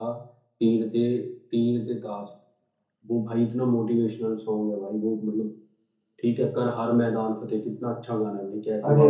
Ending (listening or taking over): taking over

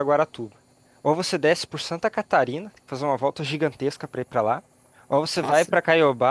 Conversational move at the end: listening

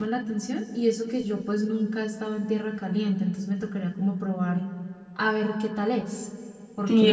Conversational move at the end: taking over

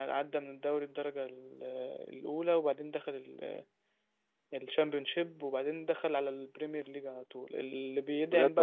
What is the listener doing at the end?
listening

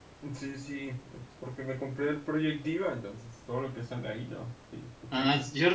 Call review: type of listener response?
taking over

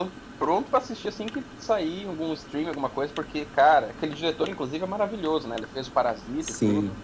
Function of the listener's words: taking over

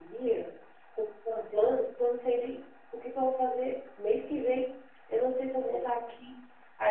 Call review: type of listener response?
listening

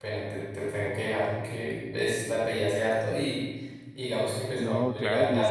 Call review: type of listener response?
taking over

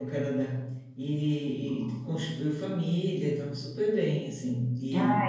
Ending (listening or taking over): listening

